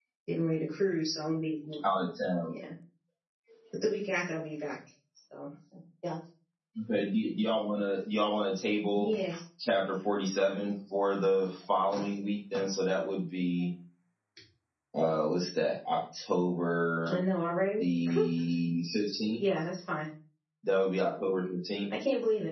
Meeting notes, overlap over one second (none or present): none